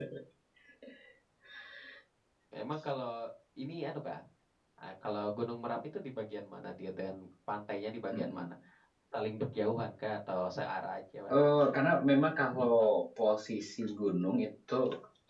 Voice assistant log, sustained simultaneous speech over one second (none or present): none